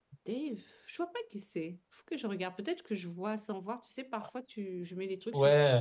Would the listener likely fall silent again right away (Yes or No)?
No